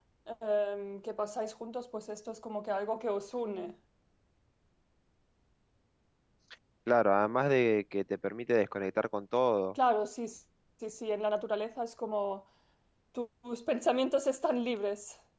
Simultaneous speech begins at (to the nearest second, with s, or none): none